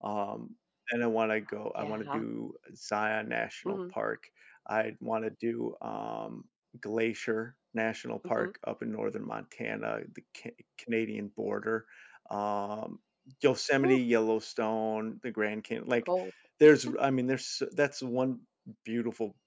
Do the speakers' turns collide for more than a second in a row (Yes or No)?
No